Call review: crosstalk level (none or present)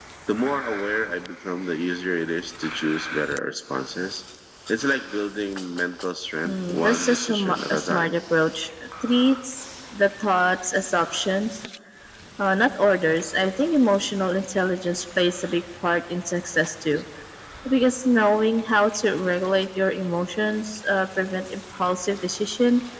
present